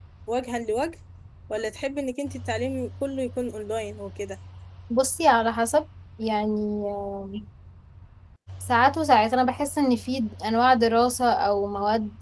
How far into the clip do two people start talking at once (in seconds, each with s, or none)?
none